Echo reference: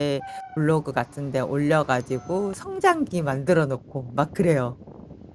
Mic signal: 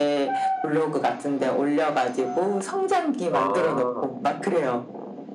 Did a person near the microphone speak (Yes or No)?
Yes